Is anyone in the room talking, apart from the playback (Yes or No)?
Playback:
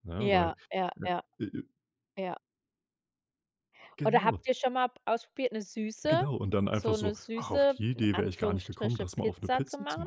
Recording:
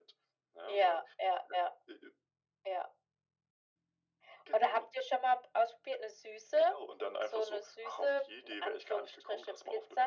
No